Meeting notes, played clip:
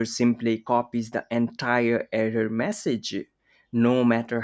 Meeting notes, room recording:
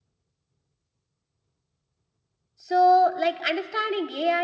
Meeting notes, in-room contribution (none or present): present